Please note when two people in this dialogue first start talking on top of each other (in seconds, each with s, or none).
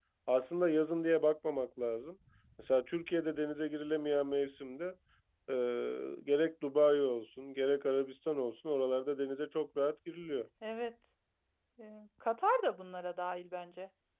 none